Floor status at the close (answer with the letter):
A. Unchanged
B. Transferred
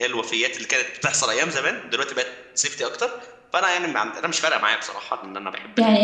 B